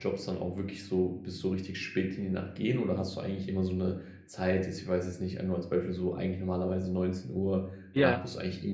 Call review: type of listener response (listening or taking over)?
listening